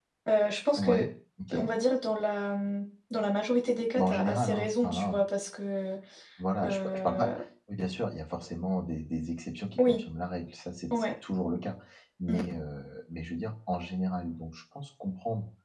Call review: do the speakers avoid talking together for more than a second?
No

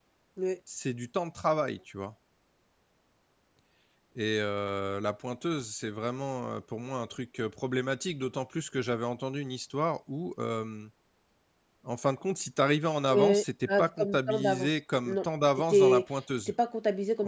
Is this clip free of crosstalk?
No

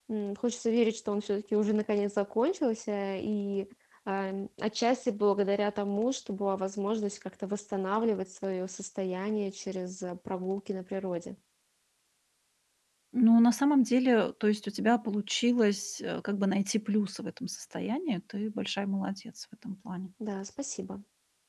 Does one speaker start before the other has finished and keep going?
No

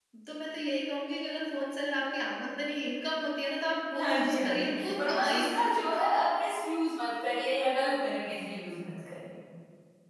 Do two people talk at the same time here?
Yes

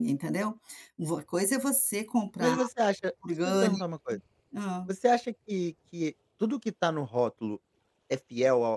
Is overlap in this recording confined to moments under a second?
Yes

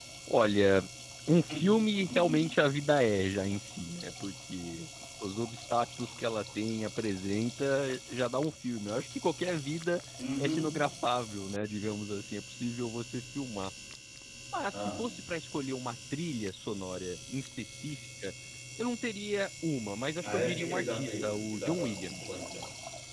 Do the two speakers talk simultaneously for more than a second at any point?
Yes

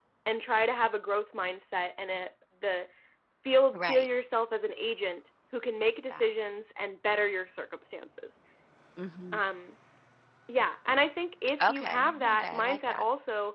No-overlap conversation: No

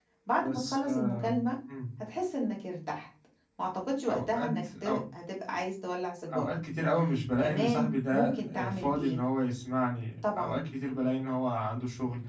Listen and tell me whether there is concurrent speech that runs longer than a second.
Yes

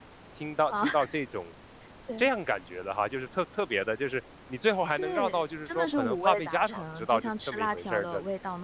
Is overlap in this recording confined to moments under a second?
No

